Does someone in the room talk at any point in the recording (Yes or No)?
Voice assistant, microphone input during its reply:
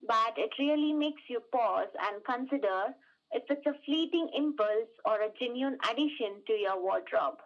No